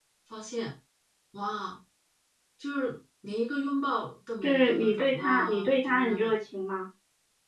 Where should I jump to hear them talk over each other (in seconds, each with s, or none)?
4.4 s